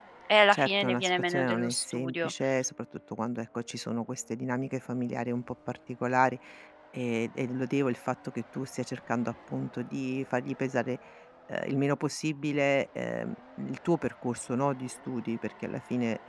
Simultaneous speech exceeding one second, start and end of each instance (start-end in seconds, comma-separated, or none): 0.5-2.3